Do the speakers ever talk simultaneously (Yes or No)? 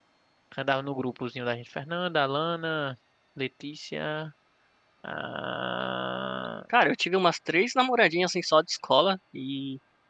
No